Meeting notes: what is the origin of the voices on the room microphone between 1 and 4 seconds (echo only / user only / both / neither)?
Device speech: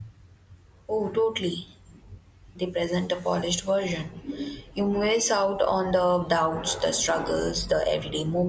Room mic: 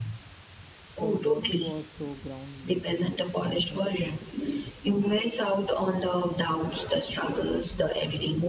both